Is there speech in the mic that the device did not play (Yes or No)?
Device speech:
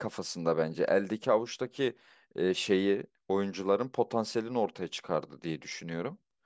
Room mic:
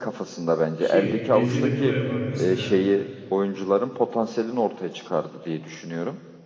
Yes